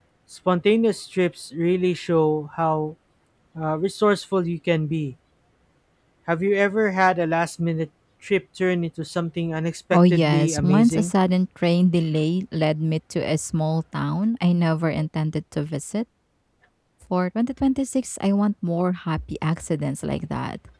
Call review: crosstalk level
present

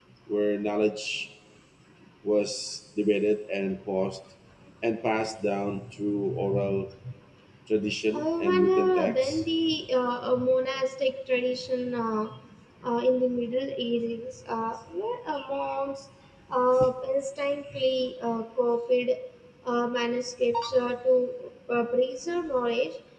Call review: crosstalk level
present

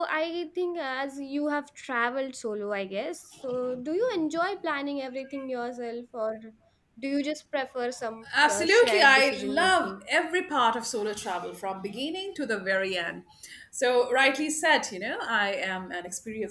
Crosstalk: present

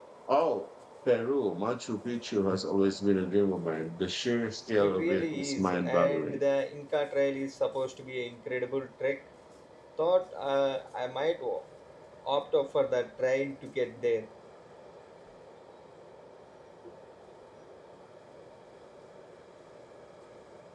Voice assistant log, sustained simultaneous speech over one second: present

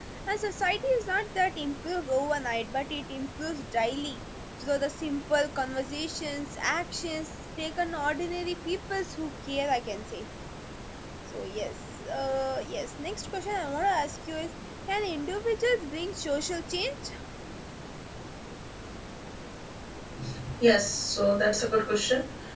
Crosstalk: none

